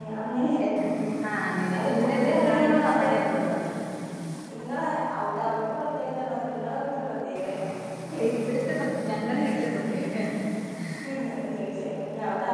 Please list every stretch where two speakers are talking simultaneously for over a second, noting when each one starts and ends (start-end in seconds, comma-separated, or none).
1.8-3.1